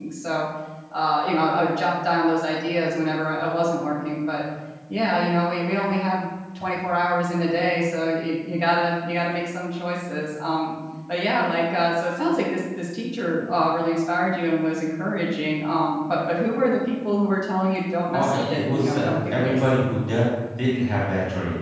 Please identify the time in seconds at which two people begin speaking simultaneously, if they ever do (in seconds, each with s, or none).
18.1 s